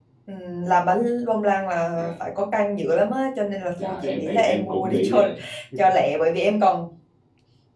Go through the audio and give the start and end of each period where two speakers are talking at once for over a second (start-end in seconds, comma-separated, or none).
3.8-5.2